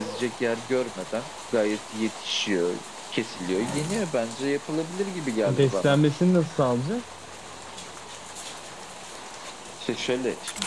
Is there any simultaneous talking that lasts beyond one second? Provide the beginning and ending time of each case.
none

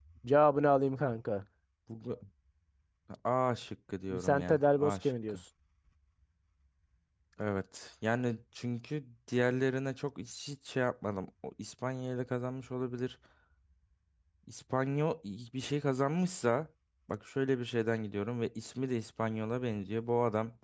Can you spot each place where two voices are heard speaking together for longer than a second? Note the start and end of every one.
4.1-5.4

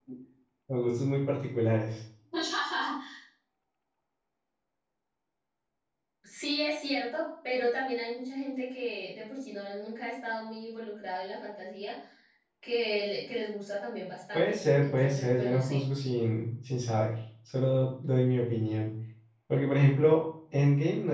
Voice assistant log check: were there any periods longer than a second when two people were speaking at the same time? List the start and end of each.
14.3-15.8

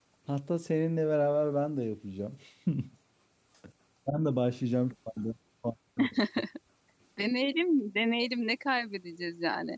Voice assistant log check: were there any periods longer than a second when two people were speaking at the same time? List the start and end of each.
none

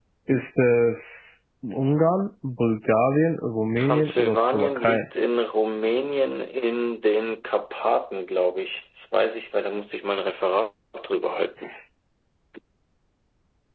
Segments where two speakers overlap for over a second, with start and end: 3.8-5.0

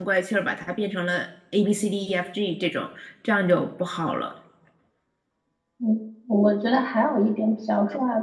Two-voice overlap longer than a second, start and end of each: none

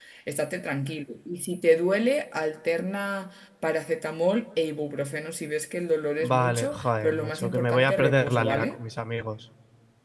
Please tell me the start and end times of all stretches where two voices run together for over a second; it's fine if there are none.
6.2-8.8

